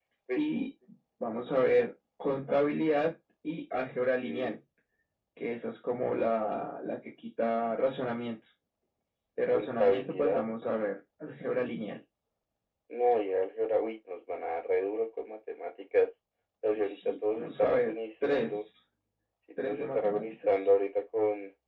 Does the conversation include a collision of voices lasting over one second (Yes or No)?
Yes